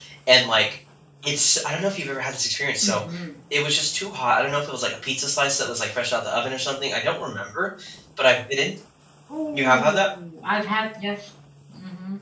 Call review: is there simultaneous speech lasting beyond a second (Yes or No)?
No